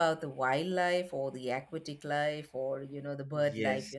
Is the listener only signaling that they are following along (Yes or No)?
No